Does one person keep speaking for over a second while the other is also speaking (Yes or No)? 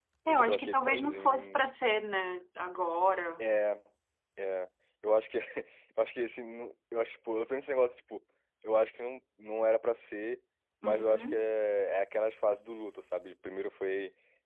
Yes